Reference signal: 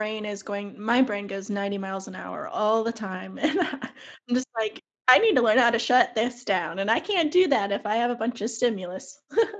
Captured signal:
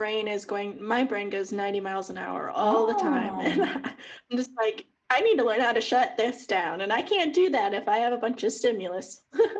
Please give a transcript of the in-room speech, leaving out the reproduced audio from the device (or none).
Oh.